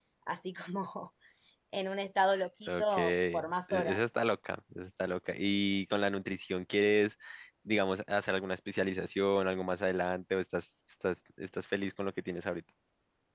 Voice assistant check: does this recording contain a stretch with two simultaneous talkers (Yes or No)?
Yes